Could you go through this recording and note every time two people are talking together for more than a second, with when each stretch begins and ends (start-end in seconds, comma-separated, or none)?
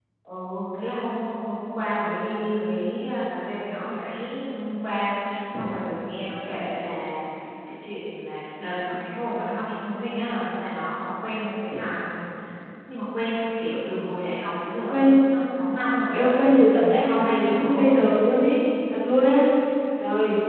16.1-18.0